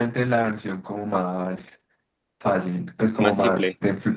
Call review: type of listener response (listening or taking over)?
listening